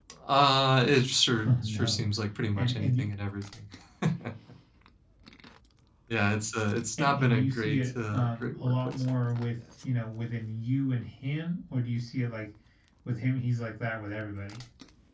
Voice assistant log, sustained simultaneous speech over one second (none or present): present